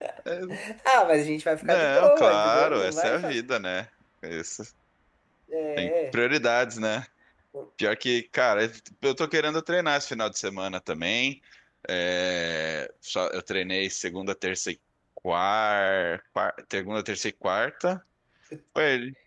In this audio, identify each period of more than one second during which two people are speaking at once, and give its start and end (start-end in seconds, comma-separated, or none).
1.6-3.4